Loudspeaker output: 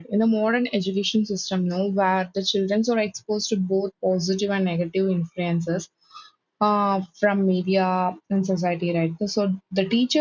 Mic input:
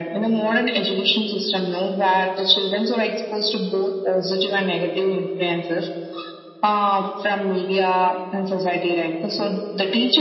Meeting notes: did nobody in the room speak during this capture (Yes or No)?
Yes